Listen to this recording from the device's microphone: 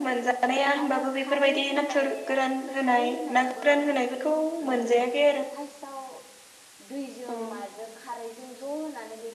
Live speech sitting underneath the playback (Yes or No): Yes